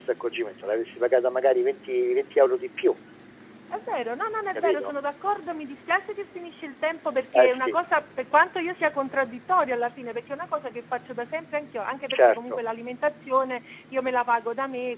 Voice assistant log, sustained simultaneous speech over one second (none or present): none